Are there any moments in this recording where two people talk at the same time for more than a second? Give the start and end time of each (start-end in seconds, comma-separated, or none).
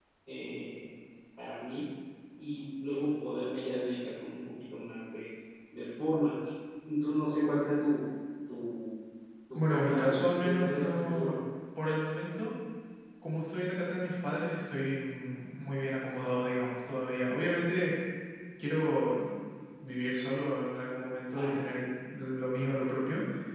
9.6-11.3